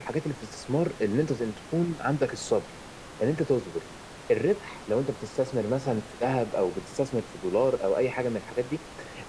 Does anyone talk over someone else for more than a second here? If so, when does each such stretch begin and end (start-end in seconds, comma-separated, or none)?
none